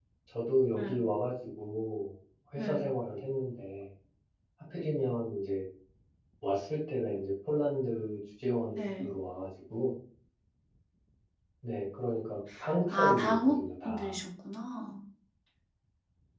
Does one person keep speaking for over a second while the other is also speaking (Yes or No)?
Yes